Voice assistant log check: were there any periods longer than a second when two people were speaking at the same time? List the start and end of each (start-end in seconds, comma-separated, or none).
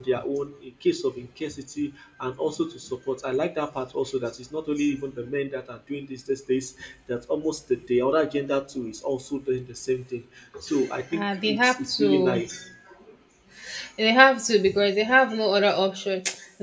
11.1-12.4